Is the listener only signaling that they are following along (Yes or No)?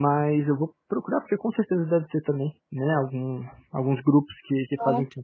Yes